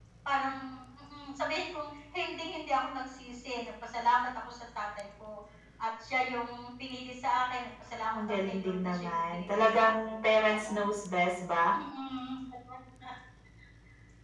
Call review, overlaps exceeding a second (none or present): present